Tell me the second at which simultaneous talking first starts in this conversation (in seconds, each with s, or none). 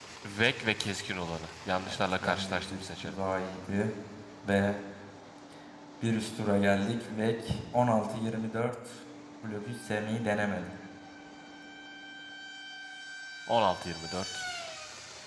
1.8 s